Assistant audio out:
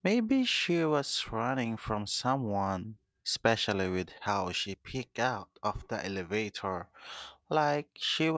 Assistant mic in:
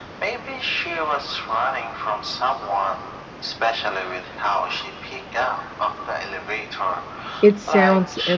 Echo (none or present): present